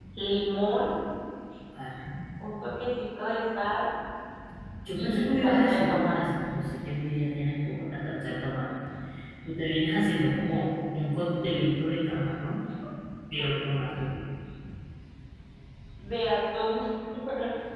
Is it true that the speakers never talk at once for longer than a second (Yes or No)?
No